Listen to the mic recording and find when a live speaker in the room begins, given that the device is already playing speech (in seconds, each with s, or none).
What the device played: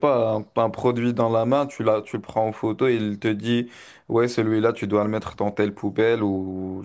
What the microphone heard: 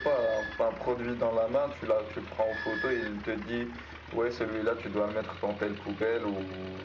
none